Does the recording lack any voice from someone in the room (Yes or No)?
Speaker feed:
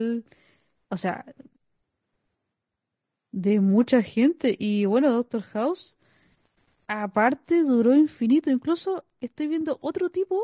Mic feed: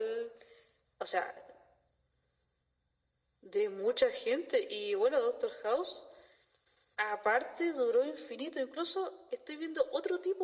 Yes